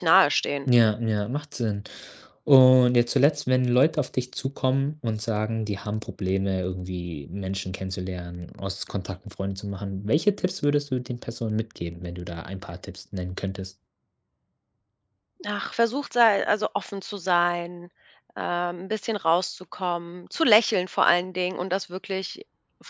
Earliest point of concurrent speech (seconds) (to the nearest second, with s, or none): none